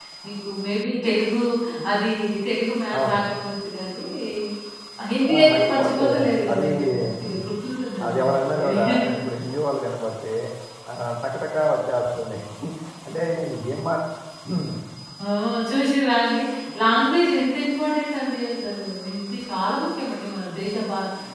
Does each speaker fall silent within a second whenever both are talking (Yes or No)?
No